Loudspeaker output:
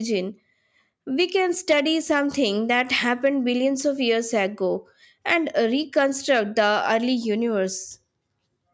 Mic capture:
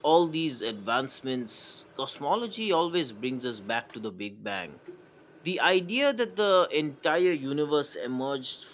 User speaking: Yes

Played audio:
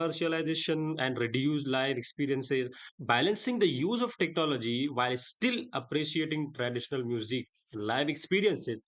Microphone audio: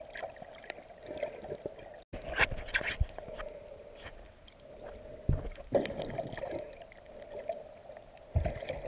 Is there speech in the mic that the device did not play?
No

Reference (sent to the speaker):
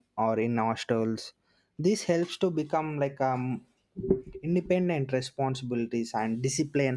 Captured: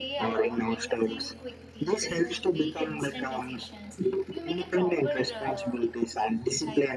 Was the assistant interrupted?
Yes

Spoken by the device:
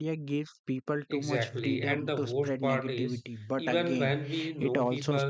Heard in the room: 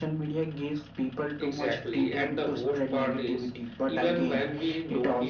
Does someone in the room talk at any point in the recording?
No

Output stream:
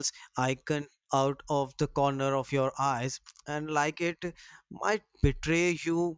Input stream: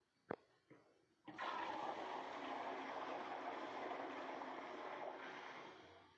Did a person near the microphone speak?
No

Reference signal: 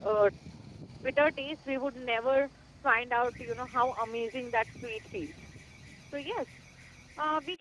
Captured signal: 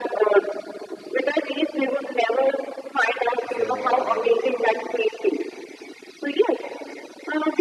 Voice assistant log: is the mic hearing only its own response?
No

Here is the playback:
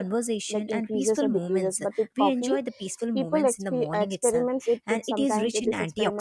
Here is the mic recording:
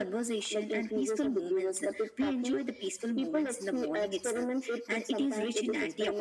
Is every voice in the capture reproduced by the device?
Yes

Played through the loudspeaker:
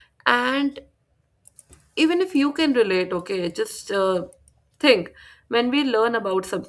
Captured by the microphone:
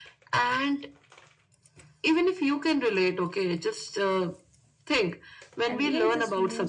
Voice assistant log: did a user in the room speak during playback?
Yes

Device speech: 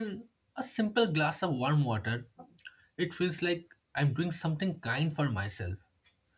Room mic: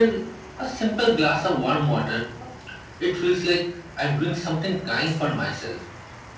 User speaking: No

